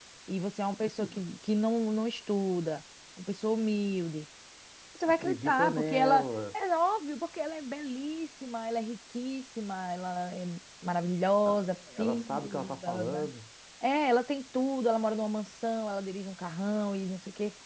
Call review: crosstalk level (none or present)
present